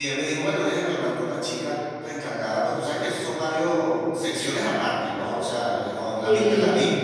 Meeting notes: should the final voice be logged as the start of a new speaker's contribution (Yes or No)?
No